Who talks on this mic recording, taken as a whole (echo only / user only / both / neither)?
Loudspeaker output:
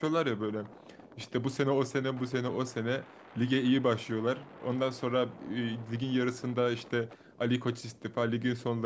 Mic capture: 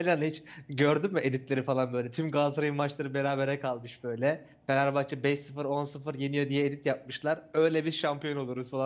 user only